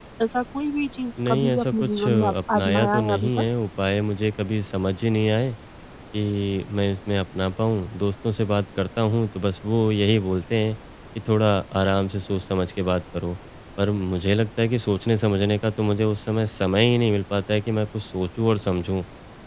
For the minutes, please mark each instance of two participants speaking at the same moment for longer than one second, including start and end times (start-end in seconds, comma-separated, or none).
1.3-3.5